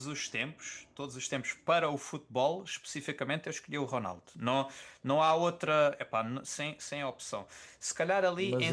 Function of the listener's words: listening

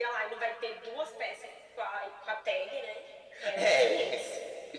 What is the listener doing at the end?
taking over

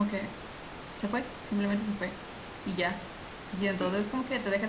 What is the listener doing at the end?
listening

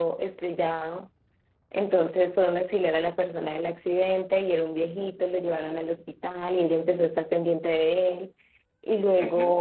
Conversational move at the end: listening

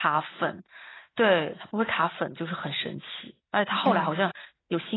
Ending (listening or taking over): listening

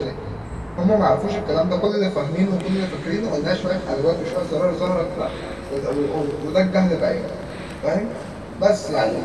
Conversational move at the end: listening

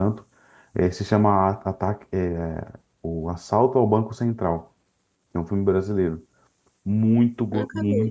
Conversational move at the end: listening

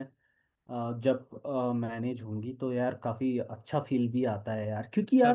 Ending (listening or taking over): taking over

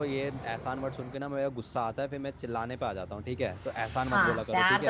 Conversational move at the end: taking over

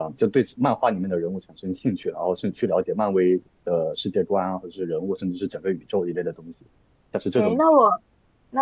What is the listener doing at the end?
taking over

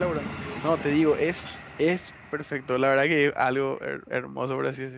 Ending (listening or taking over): taking over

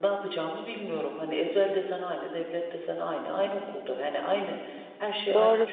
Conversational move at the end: taking over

